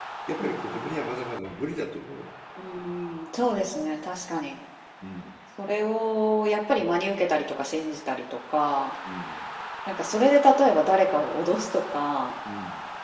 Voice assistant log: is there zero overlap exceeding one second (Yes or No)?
Yes